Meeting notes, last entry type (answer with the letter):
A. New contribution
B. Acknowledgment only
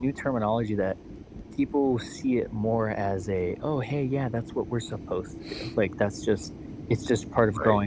B